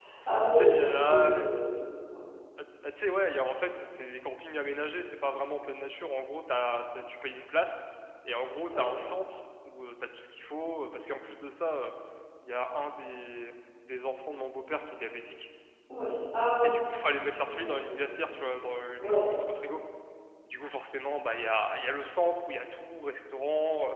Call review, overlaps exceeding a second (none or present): present